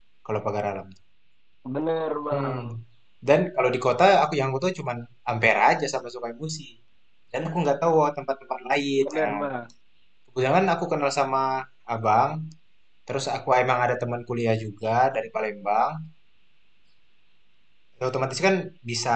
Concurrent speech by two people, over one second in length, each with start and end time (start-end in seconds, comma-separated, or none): none